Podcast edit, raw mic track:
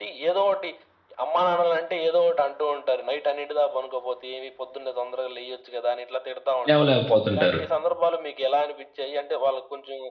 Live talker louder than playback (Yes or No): Yes